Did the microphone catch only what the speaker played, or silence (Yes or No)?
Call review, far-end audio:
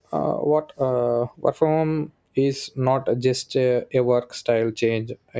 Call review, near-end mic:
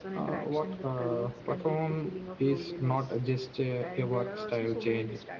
No